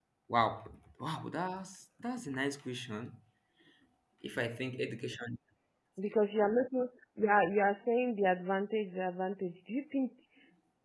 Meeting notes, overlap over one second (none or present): none